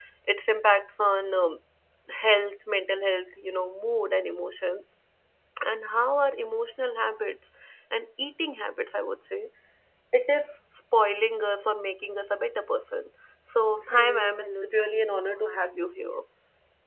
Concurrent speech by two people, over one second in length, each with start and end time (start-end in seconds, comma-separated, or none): 13.9-16.2